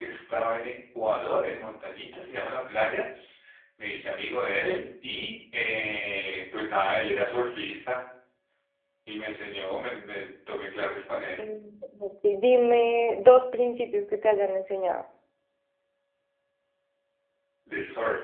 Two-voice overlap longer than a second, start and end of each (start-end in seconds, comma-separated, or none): none